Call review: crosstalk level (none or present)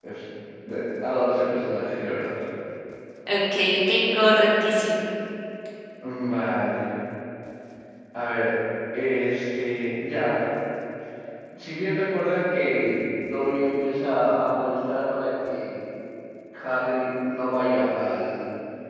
none